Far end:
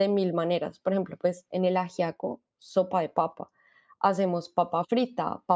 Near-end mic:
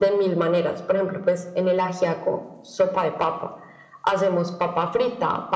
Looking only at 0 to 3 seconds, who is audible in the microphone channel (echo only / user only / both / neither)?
echo only